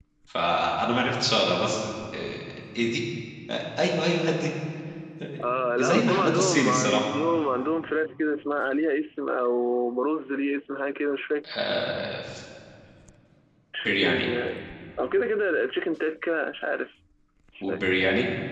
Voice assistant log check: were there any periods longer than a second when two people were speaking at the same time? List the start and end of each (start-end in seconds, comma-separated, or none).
5.8-7.1